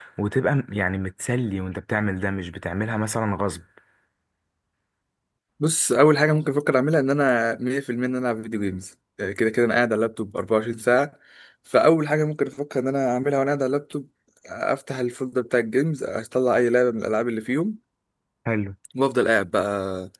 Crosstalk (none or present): none